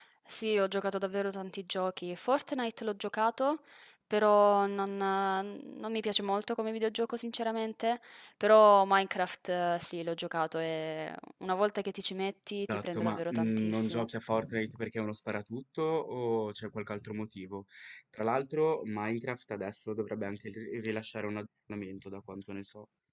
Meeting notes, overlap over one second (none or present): present